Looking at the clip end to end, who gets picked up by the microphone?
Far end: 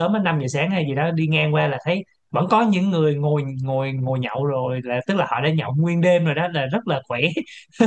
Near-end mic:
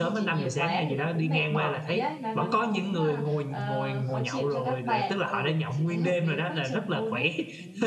both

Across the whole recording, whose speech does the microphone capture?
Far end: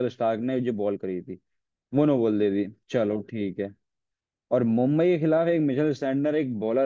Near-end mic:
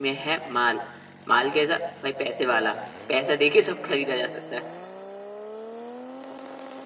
user only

